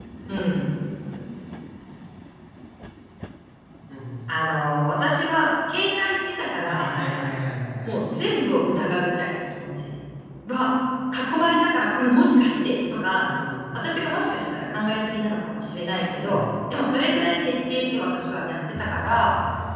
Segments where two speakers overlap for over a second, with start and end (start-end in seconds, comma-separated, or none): none